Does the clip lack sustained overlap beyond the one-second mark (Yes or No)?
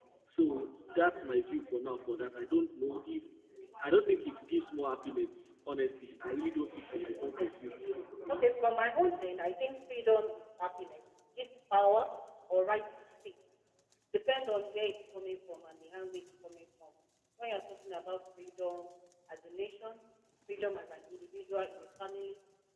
Yes